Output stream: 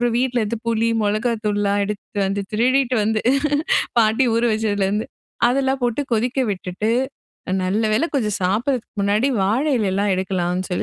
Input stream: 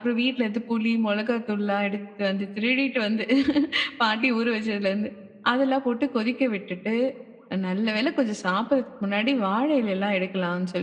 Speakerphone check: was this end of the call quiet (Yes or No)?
Yes